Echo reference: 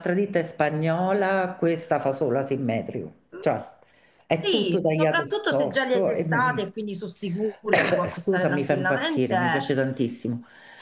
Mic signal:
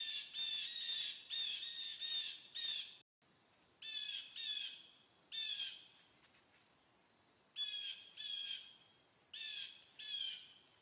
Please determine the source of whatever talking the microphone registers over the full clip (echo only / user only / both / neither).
neither